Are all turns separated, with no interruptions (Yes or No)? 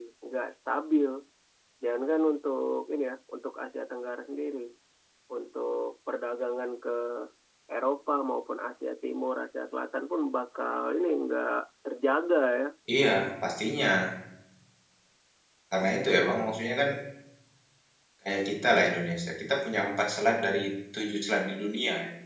Yes